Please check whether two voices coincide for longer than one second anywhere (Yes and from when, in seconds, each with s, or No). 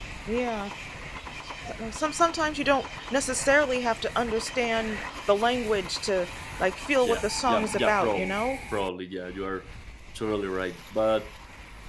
Yes, from 7.0 s